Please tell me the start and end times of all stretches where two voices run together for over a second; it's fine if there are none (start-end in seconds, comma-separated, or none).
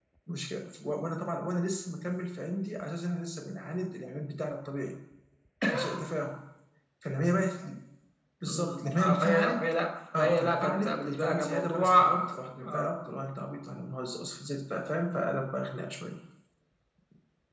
8.5-9.7, 10.2-12.9